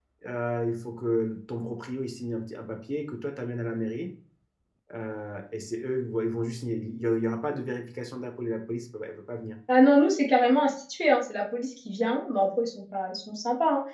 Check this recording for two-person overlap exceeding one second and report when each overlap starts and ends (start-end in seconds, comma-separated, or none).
none